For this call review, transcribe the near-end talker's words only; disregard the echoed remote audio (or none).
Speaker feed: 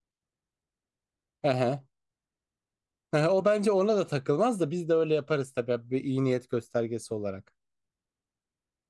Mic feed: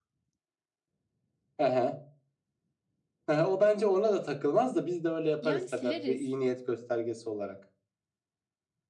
Yani sileriz.